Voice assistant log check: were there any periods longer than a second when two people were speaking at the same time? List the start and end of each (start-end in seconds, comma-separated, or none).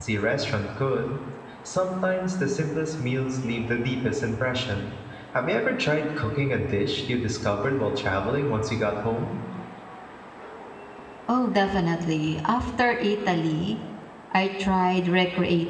none